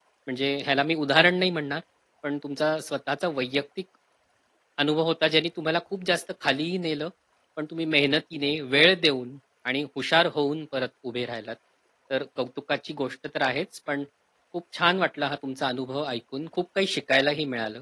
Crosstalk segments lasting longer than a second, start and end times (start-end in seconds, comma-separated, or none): none